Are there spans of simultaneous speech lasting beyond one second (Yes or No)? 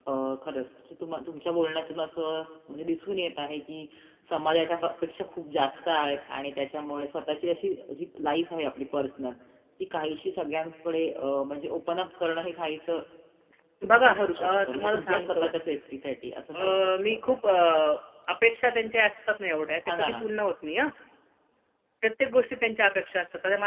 Yes